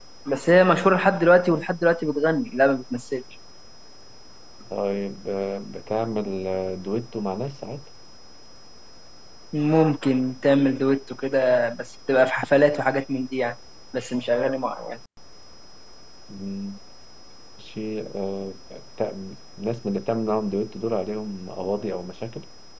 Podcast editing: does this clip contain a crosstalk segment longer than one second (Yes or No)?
No